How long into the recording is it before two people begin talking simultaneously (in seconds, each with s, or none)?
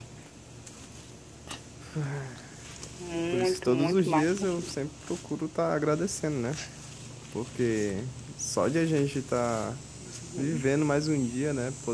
3.3 s